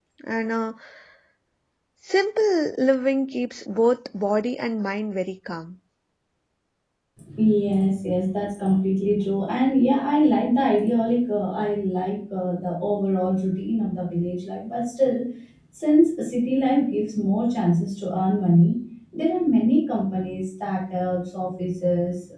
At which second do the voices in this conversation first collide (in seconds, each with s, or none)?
none